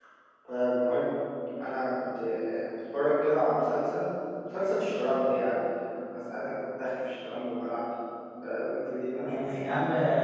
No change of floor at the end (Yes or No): No